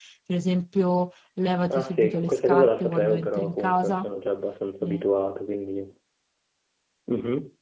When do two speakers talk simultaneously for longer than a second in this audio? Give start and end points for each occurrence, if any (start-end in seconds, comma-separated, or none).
1.7-4.1